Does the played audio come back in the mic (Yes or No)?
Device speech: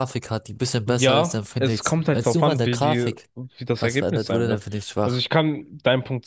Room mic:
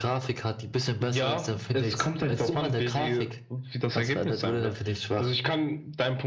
Yes